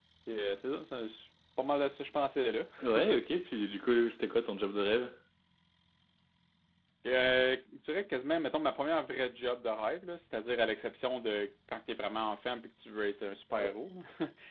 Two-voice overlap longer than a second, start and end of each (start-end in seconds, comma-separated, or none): none